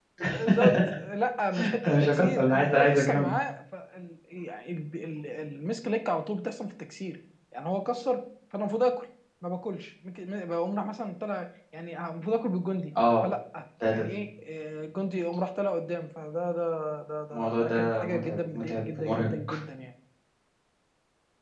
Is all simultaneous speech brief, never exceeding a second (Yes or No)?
No